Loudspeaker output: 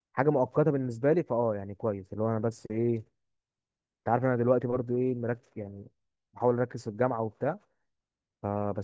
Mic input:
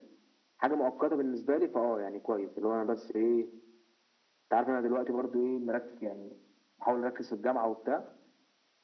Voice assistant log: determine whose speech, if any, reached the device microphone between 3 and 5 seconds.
echo only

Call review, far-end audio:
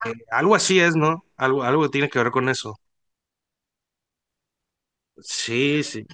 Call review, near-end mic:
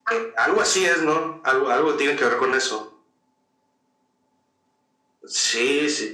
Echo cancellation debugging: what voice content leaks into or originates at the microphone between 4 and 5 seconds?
neither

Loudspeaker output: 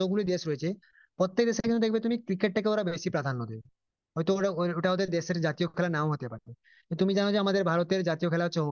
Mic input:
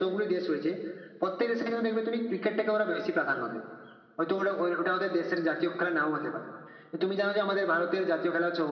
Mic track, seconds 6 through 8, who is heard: echo only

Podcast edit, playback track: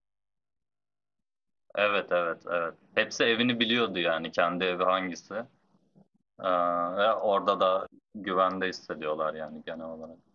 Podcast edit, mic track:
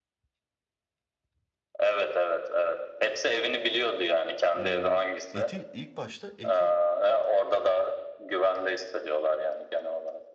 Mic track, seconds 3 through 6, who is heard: both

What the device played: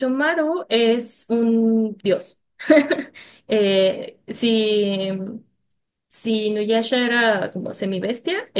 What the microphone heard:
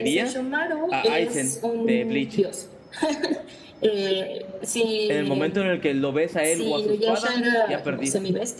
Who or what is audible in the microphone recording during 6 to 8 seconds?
both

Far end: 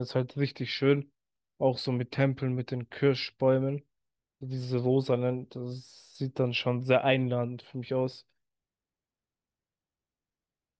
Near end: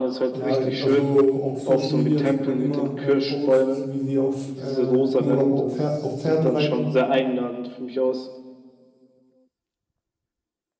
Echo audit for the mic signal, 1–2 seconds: both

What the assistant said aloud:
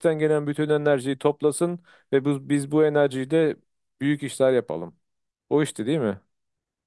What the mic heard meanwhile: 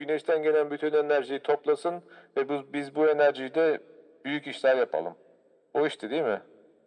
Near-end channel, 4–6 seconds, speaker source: echo only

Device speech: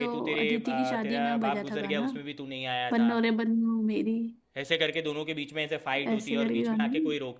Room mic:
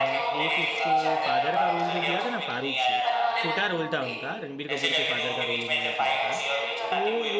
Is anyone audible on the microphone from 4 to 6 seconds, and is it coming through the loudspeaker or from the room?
both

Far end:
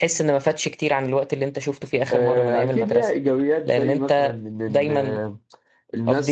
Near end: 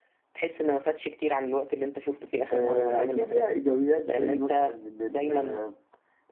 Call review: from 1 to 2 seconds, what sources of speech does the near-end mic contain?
echo only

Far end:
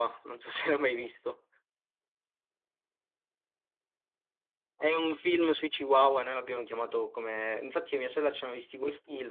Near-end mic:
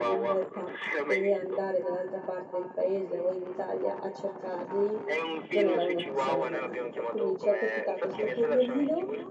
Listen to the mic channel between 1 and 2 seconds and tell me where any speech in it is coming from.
both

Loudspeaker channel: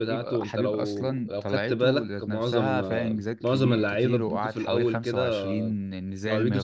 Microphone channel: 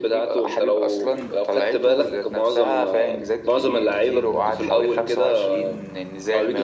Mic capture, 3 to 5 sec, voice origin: echo only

